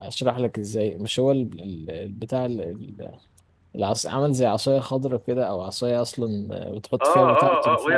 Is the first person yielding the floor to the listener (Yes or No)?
Yes